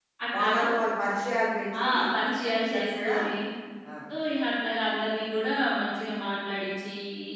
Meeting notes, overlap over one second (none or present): none